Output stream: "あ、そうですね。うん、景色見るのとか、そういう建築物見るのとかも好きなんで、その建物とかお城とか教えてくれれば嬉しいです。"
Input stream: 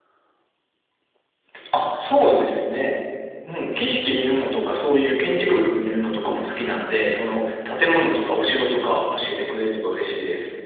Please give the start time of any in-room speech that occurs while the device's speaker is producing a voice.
none

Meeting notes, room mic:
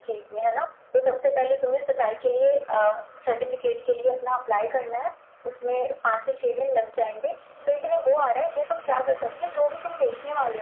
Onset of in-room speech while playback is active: none

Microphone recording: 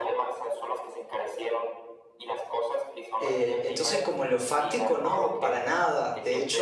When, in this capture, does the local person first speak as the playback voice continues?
3 s

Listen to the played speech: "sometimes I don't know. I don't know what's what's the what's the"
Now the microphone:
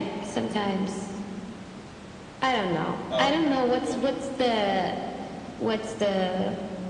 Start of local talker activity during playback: 3 s

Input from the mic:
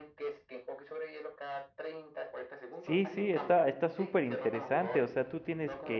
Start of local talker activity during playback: 3 s

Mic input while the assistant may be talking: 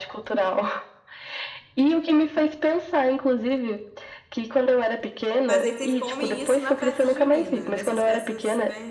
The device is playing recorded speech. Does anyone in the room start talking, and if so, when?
5 s

